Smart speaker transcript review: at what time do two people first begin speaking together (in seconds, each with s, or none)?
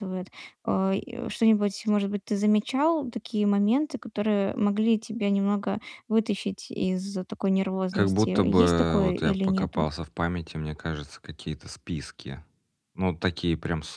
7.9 s